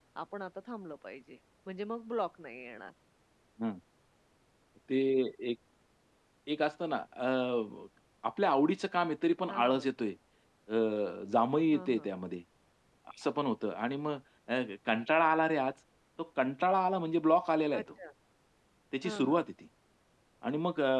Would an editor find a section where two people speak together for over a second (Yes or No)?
No